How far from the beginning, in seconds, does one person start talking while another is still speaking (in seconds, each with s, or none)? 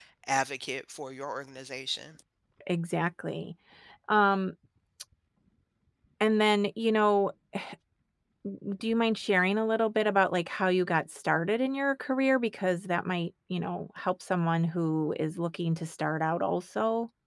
none